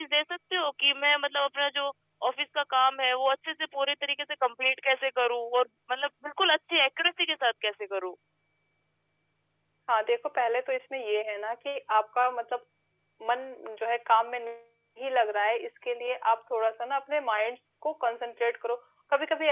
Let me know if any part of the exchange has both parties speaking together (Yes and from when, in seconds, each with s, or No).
No